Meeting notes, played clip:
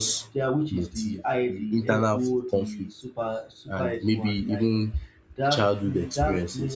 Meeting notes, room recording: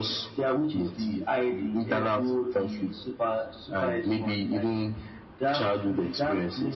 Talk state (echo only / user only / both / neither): echo only